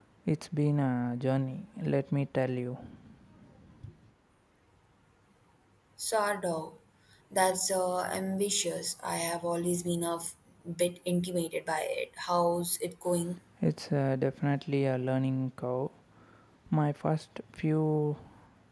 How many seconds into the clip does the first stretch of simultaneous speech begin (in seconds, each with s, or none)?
none